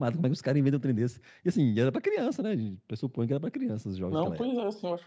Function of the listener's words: taking over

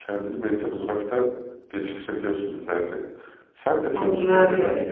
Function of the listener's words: taking over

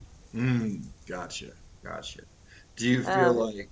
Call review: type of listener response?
listening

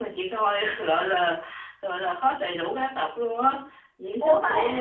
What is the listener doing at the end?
listening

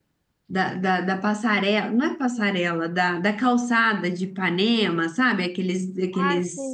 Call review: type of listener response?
taking over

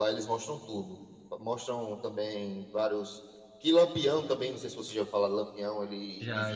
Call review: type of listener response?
listening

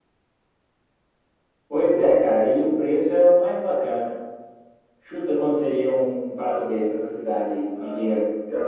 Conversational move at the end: taking over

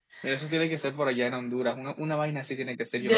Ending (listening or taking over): taking over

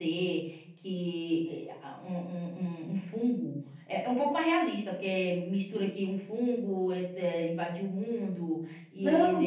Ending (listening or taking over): taking over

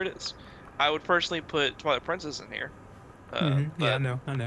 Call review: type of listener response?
taking over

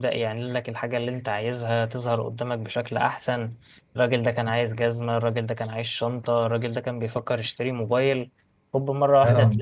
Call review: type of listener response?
taking over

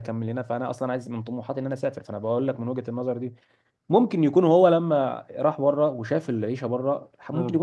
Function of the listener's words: listening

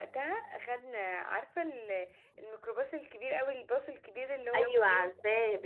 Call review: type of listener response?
taking over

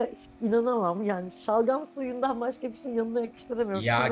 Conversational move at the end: taking over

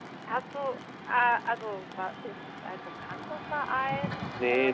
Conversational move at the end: taking over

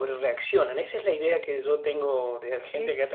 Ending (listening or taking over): listening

